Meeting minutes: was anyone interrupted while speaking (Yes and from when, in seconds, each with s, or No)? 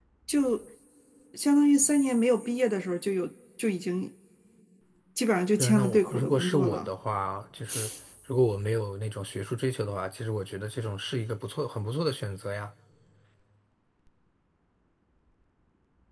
Yes, from 5.6 s